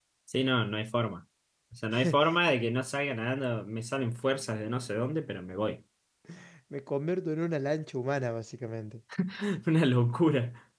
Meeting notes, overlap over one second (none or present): none